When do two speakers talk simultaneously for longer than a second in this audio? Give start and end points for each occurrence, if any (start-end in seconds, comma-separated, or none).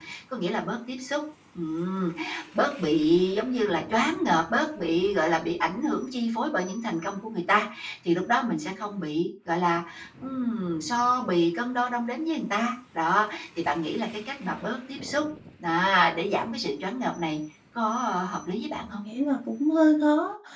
none